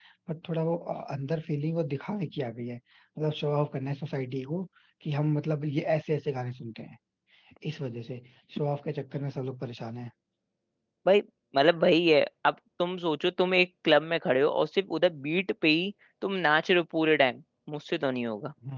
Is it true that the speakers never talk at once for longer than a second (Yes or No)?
Yes